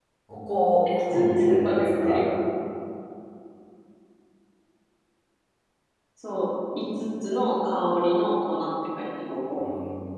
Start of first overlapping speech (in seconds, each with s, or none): 0.9 s